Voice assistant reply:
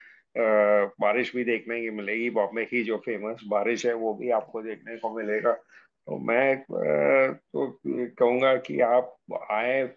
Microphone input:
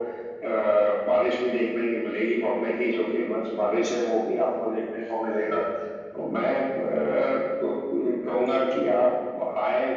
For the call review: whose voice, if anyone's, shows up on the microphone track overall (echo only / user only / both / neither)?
echo only